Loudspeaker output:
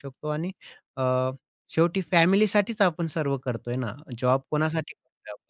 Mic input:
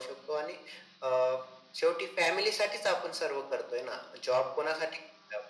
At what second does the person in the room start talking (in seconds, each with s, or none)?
none